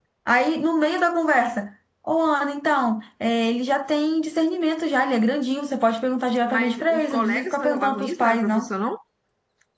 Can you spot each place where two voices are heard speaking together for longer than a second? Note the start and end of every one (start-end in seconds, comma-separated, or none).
6.5-8.7